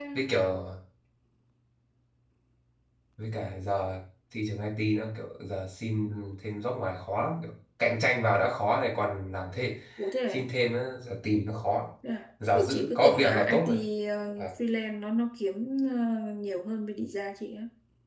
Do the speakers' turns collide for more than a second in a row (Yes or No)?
Yes